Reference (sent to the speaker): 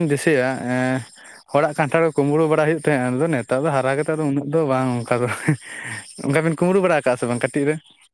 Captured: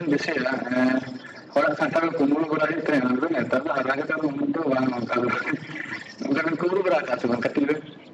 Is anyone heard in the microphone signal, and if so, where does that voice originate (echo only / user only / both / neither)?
echo only